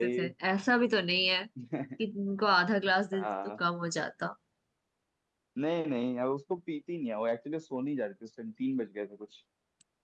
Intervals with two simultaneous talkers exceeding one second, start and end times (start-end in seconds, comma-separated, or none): none